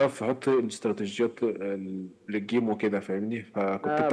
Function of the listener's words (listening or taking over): taking over